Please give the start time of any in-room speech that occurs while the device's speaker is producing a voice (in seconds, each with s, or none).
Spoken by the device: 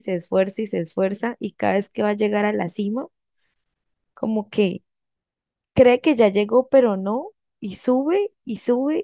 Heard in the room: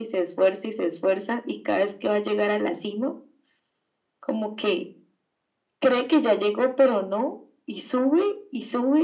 none